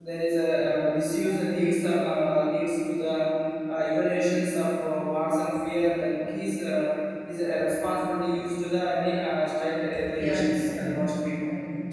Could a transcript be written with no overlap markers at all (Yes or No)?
No